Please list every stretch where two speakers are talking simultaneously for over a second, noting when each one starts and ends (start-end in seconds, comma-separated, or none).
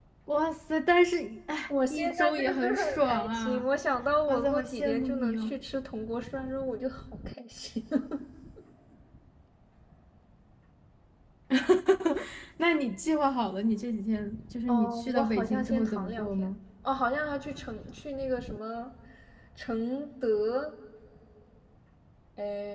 1.7-3.7, 4.3-5.6, 14.7-16.5